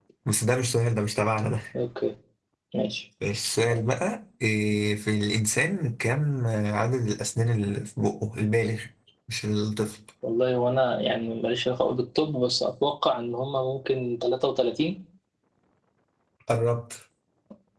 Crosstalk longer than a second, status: none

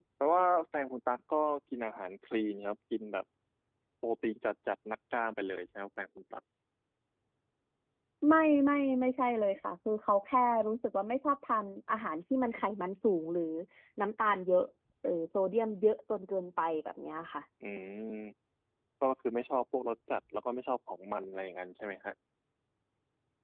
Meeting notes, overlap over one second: none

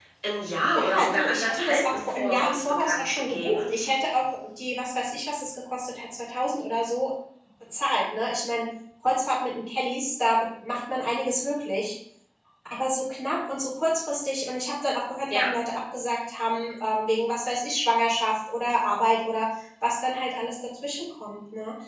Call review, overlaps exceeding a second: present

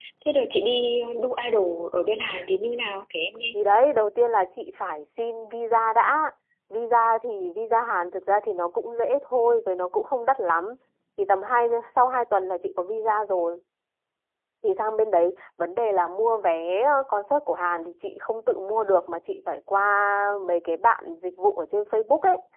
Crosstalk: none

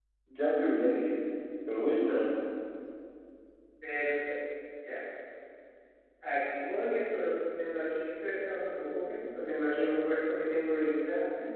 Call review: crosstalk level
none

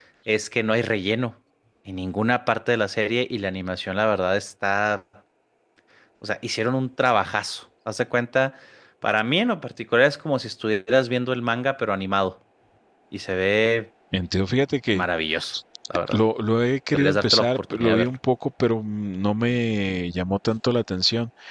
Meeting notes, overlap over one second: present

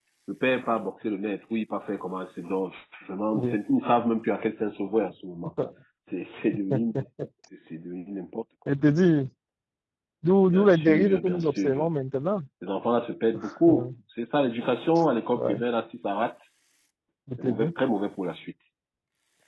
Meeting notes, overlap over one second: present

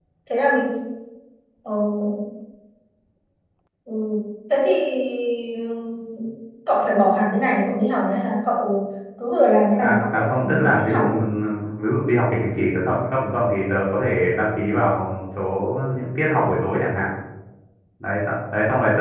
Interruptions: present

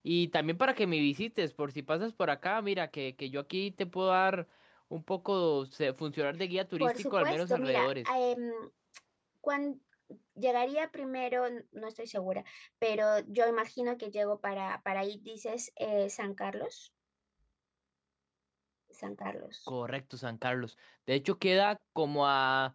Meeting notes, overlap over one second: present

